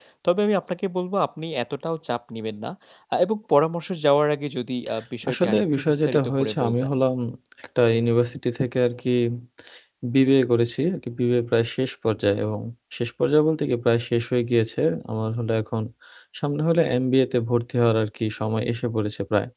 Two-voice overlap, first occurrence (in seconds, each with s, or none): 5.2 s